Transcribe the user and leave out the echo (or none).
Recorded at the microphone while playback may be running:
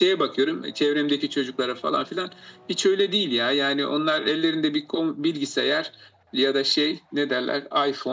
none